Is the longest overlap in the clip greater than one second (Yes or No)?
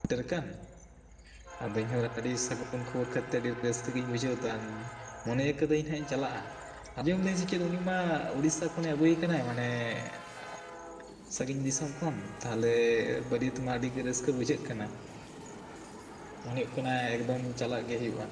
No